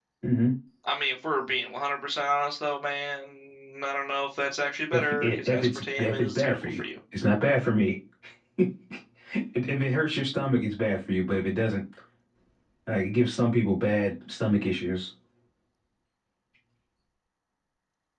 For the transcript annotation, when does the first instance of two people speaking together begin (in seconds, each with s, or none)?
4.9 s